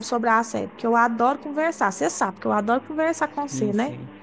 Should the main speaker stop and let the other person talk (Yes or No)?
Yes